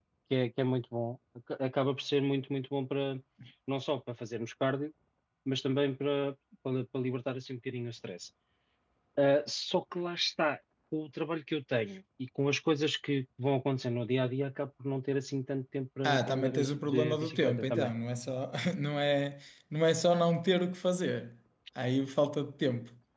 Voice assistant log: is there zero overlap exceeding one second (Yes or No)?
No